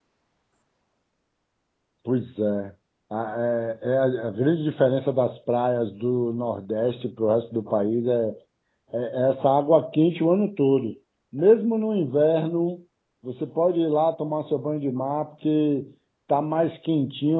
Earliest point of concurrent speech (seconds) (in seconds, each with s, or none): none